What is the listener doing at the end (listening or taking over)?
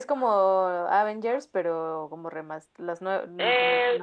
taking over